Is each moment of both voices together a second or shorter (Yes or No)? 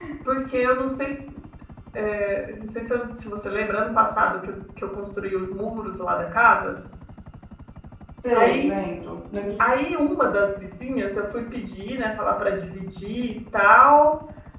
Yes